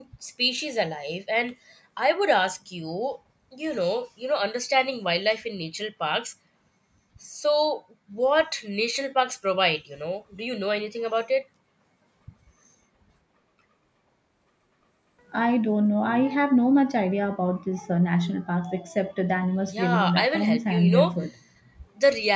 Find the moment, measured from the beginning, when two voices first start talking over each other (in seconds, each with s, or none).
19.7 s